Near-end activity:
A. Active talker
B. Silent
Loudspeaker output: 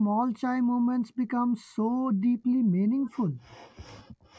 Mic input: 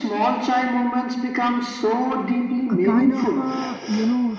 A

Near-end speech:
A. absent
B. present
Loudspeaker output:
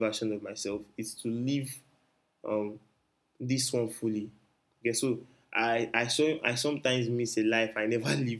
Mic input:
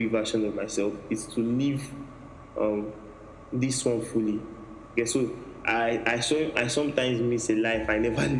A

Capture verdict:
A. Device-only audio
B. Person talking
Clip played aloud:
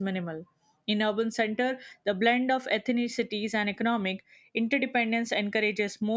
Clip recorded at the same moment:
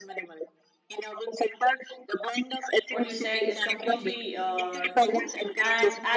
B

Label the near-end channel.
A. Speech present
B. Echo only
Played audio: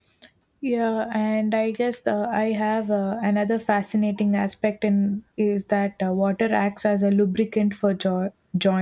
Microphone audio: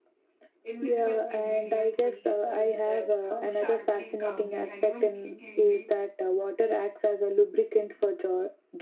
A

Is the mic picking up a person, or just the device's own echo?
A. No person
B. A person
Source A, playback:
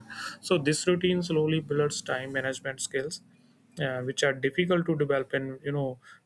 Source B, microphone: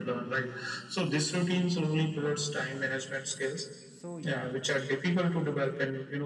B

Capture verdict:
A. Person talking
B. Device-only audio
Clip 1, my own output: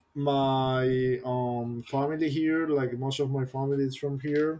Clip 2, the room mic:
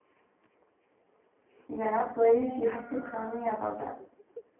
A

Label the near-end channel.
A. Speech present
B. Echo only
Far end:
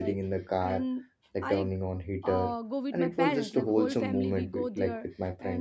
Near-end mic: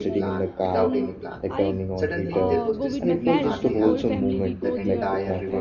A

